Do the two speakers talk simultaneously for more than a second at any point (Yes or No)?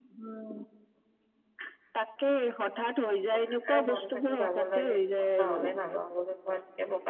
Yes